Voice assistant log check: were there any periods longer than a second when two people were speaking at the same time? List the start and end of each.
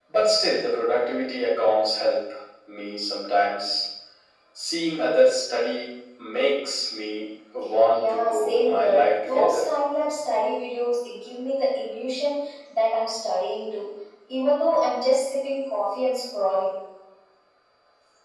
7.9-9.7

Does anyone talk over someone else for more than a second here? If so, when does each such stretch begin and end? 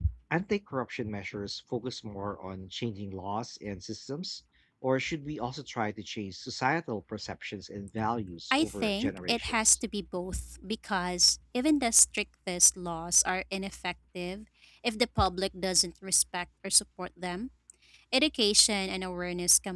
8.5-9.8

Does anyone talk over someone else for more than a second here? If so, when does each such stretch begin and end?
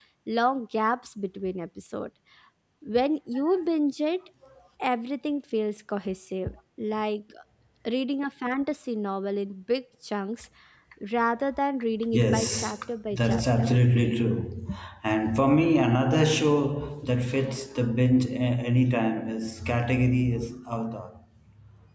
12.1-13.6

